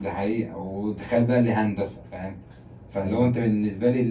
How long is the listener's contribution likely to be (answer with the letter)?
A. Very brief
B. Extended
A